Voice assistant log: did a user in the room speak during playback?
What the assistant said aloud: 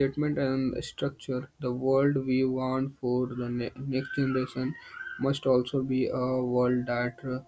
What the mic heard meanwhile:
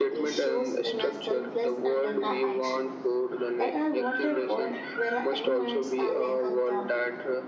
Yes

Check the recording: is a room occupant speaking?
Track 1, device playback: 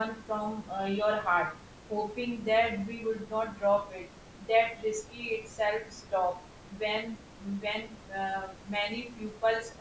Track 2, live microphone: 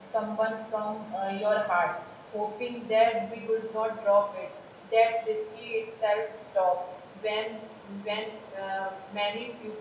No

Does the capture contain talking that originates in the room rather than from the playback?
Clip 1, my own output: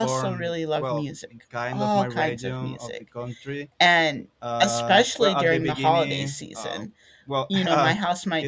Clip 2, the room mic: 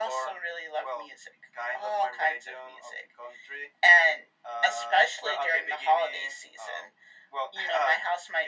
No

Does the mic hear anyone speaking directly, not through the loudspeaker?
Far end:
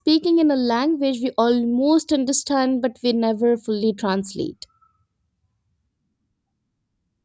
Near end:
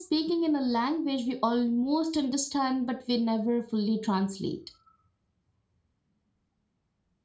No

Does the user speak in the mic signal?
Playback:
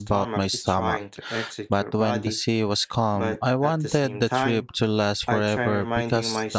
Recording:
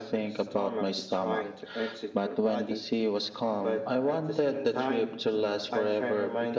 No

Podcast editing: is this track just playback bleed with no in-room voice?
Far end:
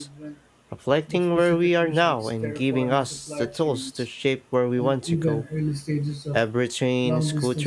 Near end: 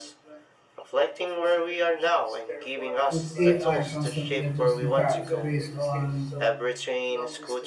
No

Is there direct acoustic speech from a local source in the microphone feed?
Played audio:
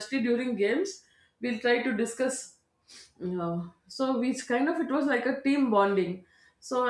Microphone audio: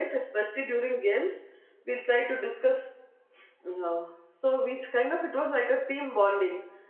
No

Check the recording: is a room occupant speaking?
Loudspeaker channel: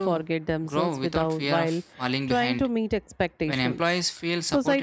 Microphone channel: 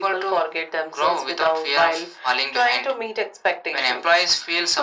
No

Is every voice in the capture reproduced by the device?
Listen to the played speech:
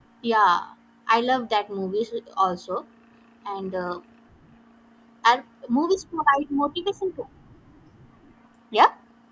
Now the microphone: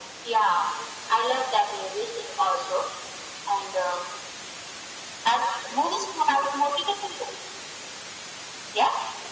Yes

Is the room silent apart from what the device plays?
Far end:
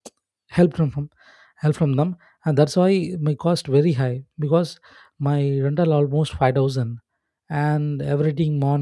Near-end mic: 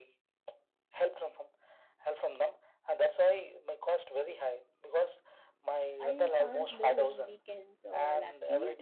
No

